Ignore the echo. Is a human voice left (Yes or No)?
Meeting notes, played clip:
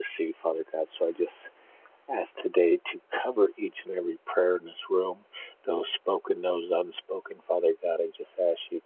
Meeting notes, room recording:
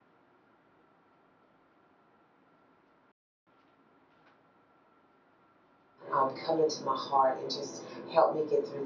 Yes